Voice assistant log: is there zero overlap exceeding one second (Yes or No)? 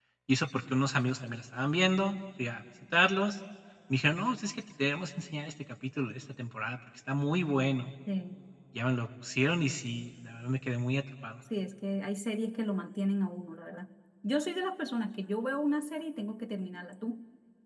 Yes